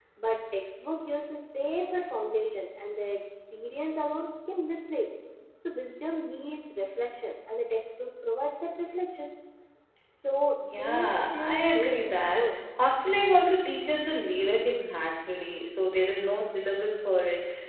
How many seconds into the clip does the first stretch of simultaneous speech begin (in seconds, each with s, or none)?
10.6 s